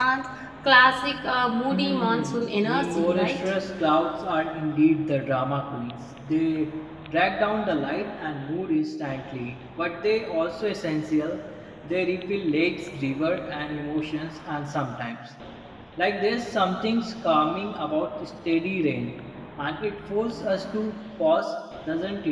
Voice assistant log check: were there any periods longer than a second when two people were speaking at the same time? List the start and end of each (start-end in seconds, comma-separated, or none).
1.7-3.4